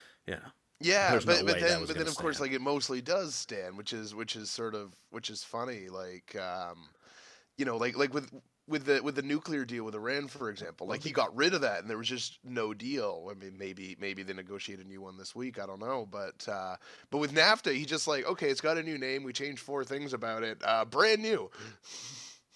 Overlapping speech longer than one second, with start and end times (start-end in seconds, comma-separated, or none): 1.0-2.4